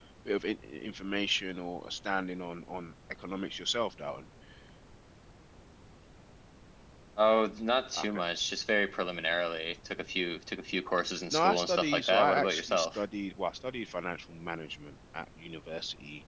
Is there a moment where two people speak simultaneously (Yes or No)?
Yes